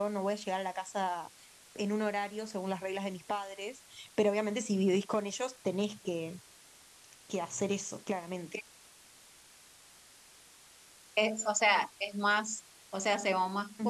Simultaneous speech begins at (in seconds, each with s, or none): none